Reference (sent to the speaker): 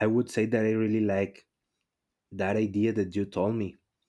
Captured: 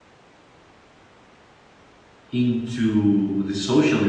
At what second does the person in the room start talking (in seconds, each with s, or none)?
2.3 s